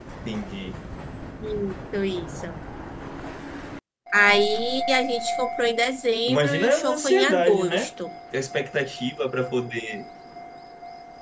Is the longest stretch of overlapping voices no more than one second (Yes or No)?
No